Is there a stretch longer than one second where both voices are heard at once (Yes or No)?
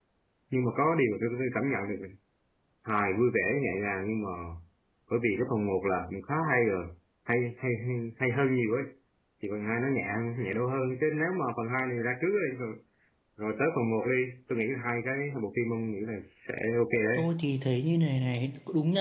No